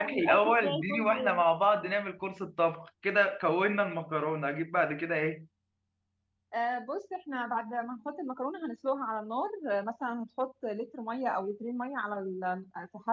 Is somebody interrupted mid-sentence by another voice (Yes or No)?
Yes